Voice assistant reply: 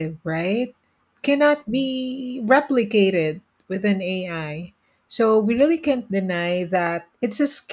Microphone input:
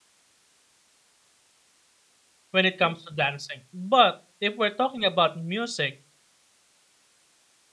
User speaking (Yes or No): Yes